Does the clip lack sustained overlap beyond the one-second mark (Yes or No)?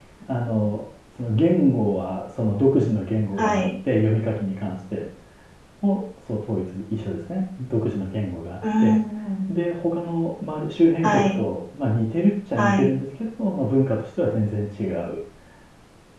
Yes